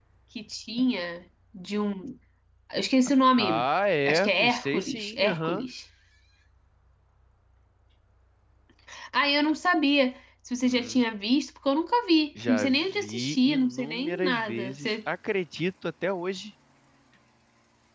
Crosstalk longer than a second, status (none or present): present